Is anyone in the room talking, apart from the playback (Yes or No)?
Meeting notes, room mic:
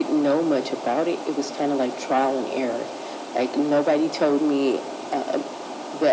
No